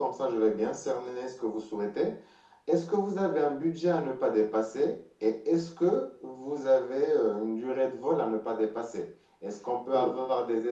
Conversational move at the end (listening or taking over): listening